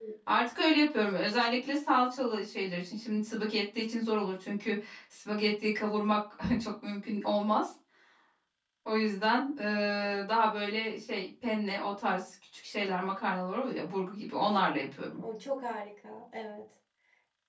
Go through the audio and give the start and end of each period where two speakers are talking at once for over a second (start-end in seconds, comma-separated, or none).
none